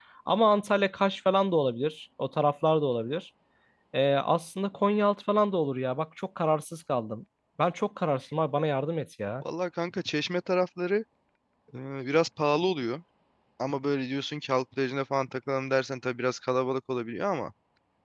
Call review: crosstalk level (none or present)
none